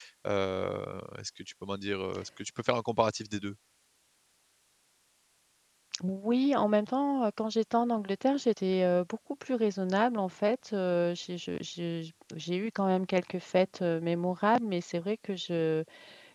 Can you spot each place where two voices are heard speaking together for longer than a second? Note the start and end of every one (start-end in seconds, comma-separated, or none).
none